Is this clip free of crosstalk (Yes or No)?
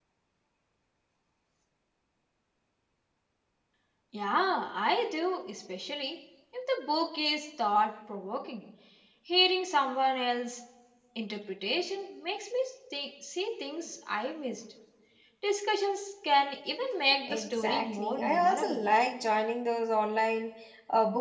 No